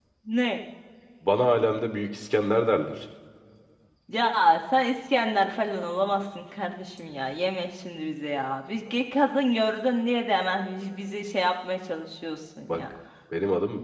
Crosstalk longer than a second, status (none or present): none